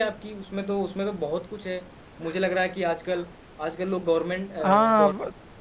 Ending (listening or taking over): taking over